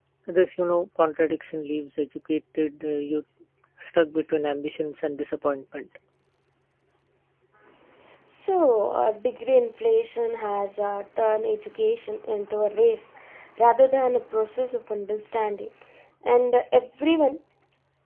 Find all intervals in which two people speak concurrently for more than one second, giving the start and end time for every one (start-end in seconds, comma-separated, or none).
none